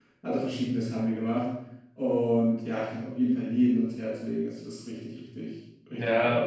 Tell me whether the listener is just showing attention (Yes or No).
No